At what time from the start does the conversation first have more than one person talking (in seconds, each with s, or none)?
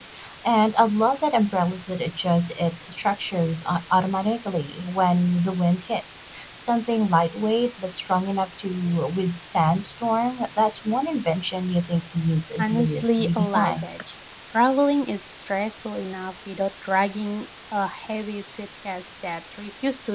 12.6 s